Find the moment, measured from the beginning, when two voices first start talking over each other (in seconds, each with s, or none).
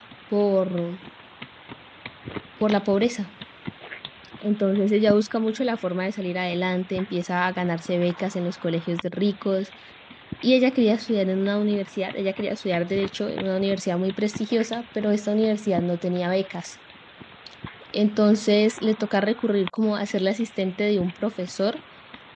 none